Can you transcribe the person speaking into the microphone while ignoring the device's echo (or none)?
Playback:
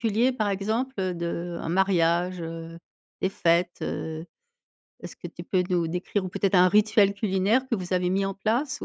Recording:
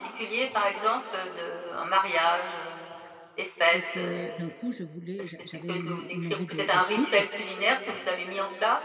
et que d'un coup, je voulais j'a j'avais une une envie de soupe